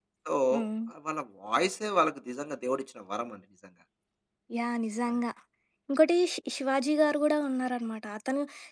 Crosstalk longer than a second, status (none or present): none